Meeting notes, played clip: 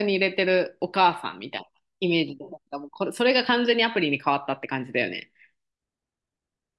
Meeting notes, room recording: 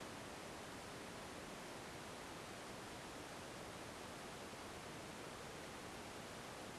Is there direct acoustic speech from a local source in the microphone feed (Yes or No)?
No